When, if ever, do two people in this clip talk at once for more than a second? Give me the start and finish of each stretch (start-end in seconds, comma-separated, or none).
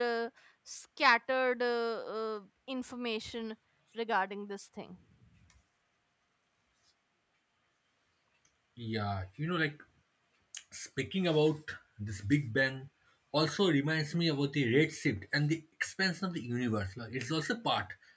none